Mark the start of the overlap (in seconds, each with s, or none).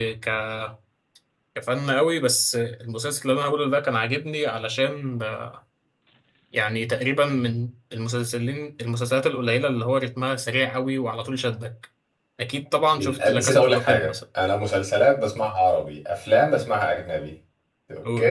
12.9 s